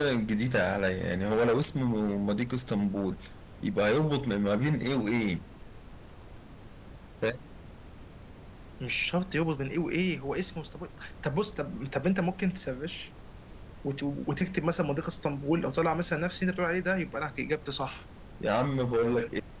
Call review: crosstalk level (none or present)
none